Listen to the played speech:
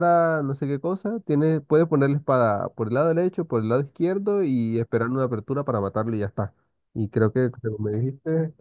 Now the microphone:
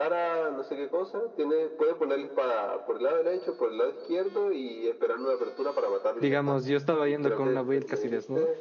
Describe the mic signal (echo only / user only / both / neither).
both